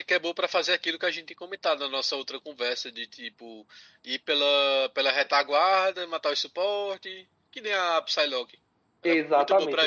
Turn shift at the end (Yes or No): Yes